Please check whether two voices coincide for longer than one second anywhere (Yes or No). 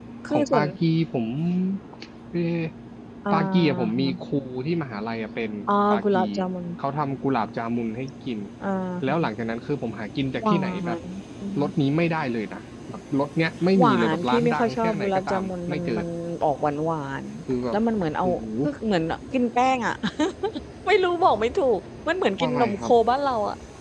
Yes